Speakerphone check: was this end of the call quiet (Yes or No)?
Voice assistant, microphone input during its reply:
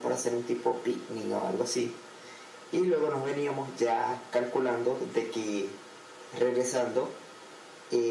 Yes